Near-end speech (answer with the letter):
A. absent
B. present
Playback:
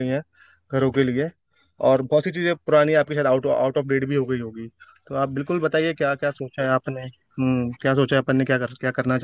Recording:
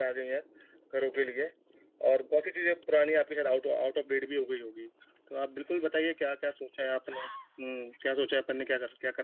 A